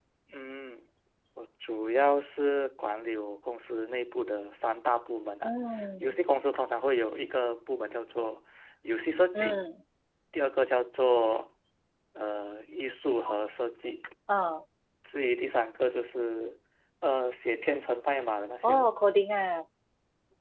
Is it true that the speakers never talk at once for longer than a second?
Yes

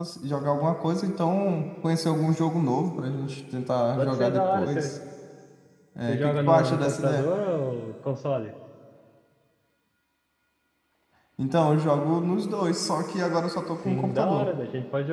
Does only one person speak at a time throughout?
No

